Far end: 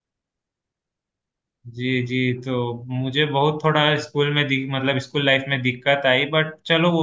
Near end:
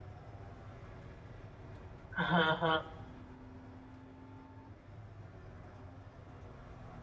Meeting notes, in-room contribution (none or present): present